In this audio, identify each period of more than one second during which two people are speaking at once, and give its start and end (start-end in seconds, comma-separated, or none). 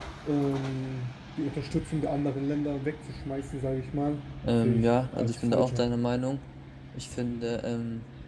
4.6-5.8